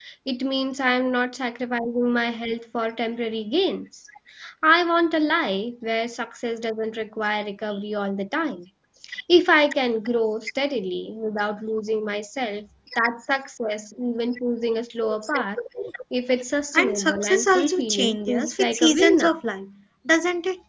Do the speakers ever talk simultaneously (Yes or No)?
Yes